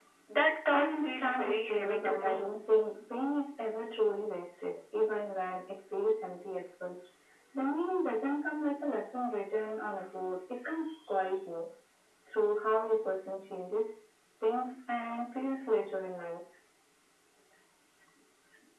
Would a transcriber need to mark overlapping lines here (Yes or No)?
Yes